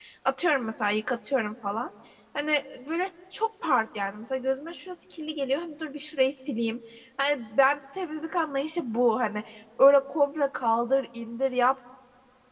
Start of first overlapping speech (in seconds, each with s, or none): none